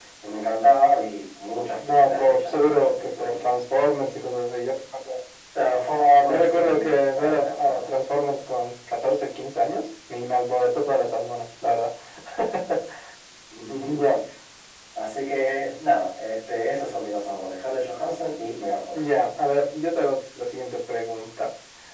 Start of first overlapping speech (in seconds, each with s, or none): 1.9 s